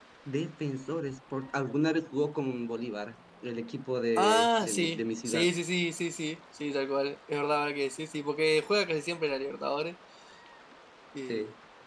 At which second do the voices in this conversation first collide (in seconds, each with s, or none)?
4.2 s